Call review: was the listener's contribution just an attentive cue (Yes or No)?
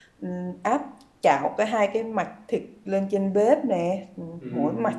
Yes